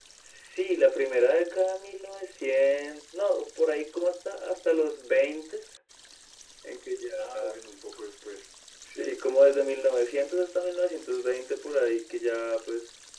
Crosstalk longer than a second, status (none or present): none